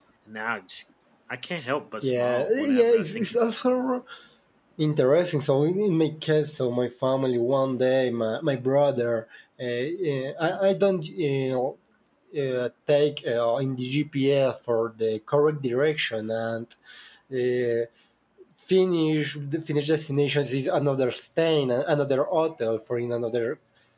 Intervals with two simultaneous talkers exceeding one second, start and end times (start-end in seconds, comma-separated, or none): 2.0-3.5